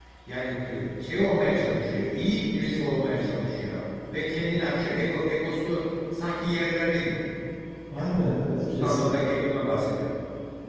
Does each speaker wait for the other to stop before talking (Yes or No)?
No